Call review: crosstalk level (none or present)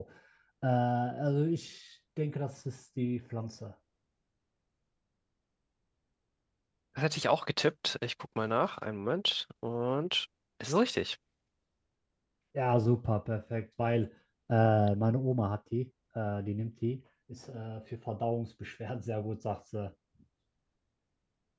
none